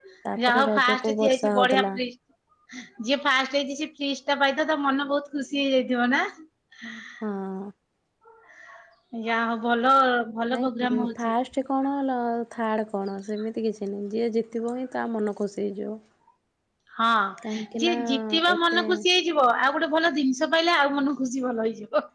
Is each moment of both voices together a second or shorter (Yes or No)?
No